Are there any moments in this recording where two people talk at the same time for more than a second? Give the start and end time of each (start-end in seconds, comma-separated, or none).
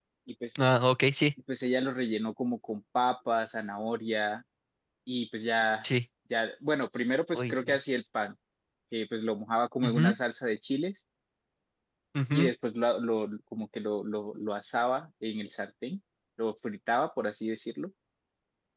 none